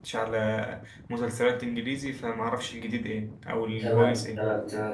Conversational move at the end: taking over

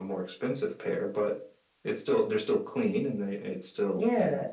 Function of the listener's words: taking over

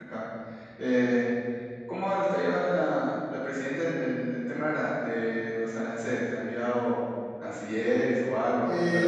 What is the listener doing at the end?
taking over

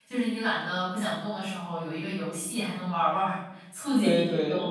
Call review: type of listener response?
taking over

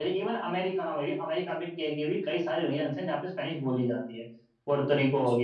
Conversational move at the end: listening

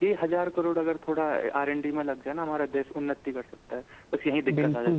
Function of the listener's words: taking over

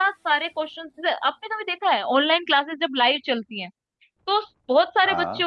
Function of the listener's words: listening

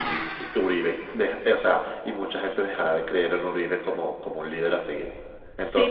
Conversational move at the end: taking over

